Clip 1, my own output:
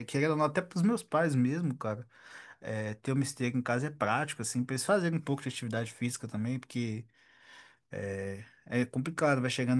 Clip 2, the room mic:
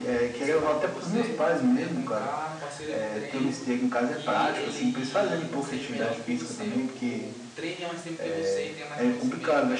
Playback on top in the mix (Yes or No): Yes